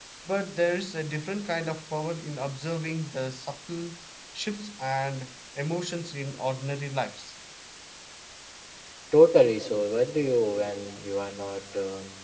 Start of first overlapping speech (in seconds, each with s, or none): none